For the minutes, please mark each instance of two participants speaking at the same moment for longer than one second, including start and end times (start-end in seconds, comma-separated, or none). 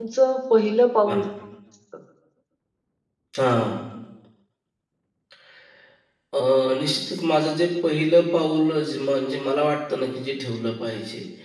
none